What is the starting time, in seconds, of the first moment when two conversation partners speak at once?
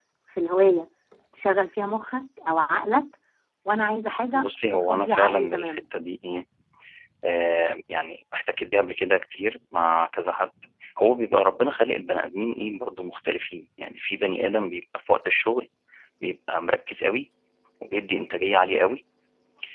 4.3 s

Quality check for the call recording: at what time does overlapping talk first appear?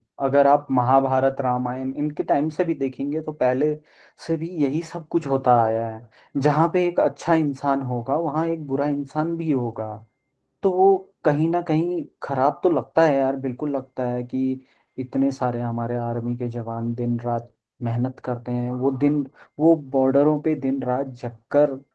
none

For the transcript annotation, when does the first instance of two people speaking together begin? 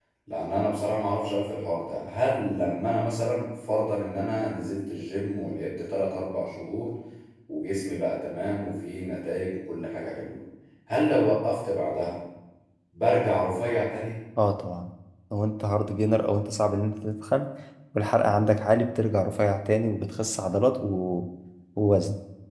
none

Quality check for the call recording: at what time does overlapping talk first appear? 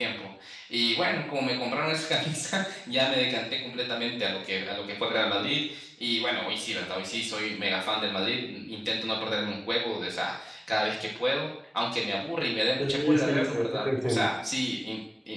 12.8 s

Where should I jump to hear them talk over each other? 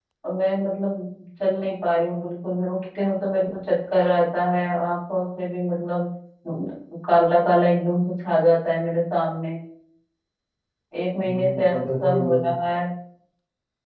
11.2 s

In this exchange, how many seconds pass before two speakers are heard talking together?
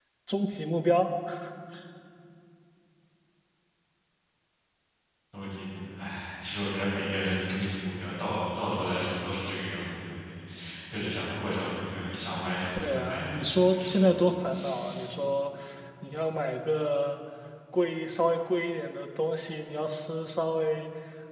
12.8 s

